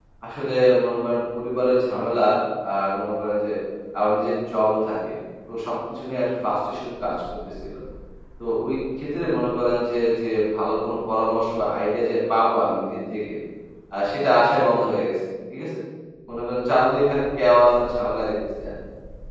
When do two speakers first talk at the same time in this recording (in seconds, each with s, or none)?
none